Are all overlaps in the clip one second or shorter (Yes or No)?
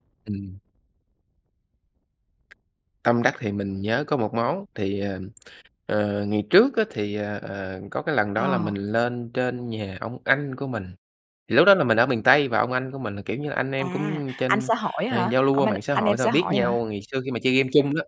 No